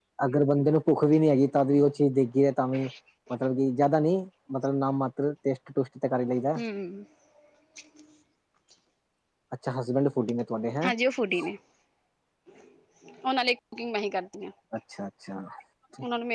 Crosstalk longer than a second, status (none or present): none